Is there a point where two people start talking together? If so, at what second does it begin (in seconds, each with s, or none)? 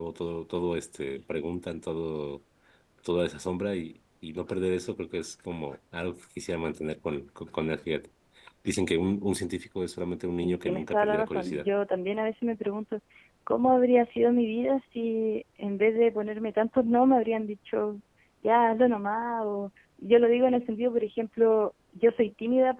10.4 s